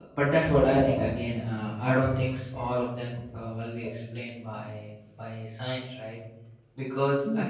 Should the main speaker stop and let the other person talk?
No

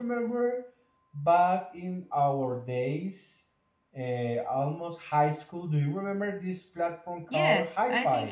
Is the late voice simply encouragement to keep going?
No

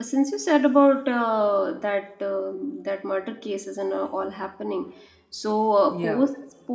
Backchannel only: Yes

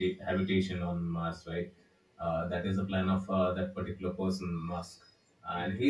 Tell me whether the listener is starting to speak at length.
No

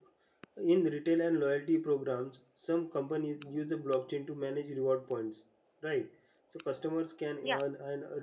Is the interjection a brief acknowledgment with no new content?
Yes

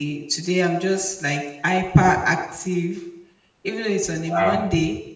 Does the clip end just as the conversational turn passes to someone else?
No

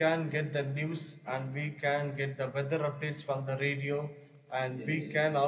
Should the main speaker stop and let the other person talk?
No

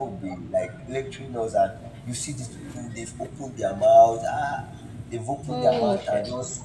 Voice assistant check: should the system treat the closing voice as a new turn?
No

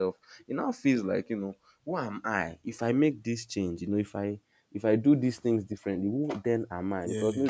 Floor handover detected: No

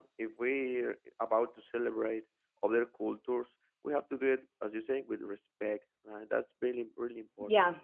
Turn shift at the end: Yes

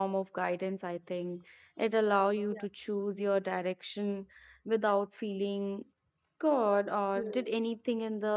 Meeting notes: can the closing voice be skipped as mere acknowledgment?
Yes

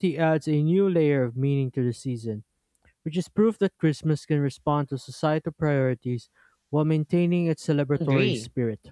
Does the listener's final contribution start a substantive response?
Yes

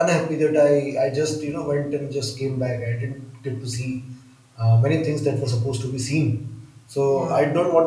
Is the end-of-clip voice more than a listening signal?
No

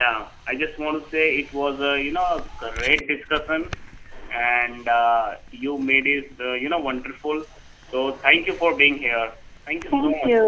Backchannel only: No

